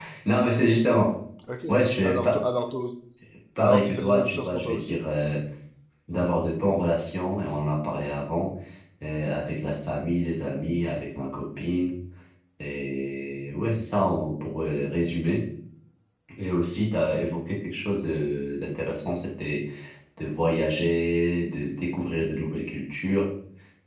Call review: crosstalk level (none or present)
present